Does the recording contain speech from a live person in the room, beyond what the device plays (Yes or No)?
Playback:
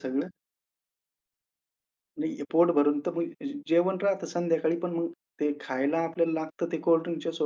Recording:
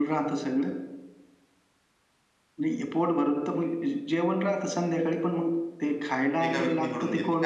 Yes